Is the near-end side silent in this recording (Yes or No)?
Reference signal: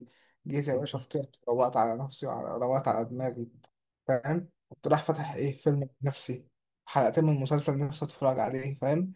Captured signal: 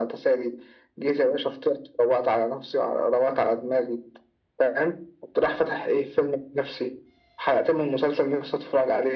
Yes